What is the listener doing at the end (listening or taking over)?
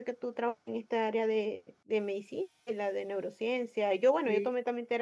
listening